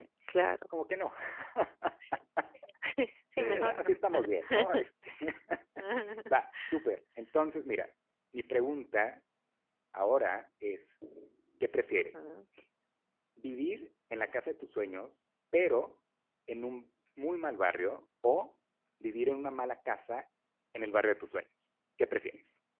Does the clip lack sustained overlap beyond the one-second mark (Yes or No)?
Yes